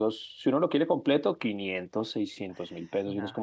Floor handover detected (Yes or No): No